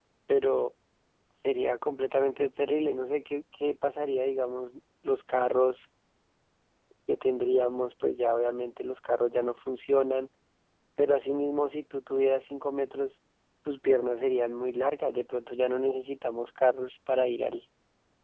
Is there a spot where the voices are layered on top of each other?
No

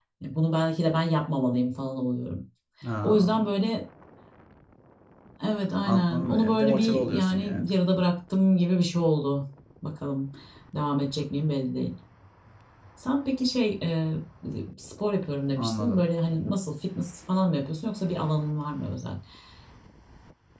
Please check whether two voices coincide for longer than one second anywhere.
Yes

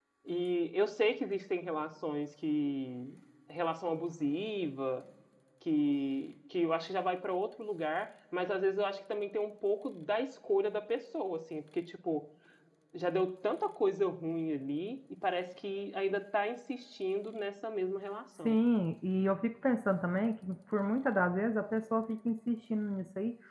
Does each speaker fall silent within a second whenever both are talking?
Yes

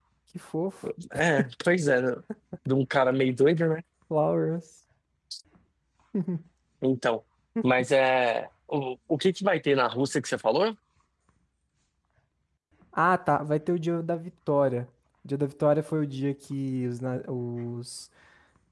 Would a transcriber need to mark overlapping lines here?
No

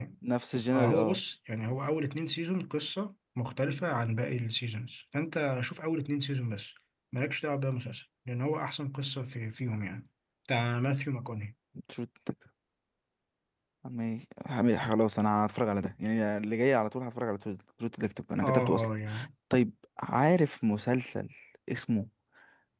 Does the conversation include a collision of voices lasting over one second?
No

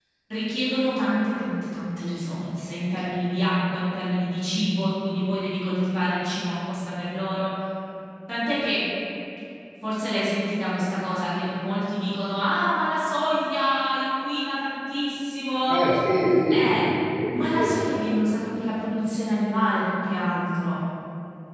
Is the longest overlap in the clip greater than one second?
No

